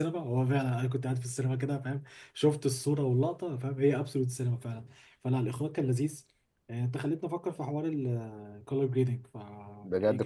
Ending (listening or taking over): taking over